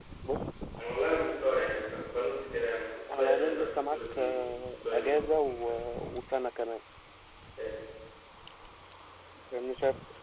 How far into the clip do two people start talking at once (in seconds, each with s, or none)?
2.9 s